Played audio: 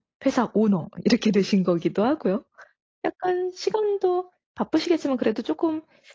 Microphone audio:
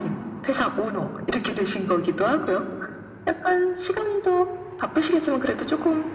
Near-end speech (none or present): none